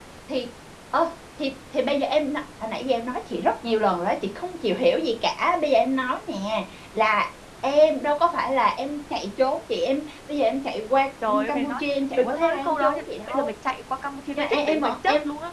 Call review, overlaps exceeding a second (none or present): present